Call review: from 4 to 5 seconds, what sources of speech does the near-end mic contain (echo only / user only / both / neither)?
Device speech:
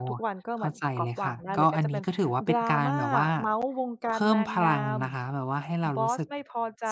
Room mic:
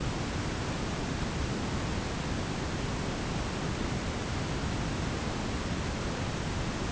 neither